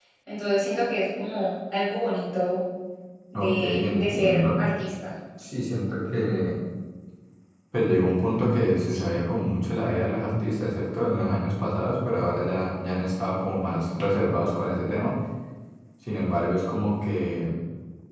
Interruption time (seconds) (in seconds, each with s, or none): 3.3 s